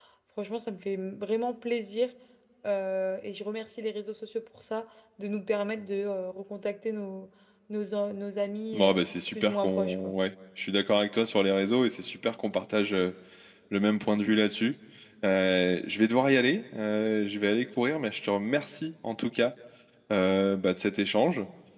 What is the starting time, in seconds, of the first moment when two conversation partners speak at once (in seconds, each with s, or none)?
8.7 s